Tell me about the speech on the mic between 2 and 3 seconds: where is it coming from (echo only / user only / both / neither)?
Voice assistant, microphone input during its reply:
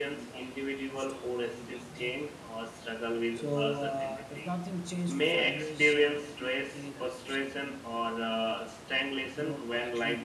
echo only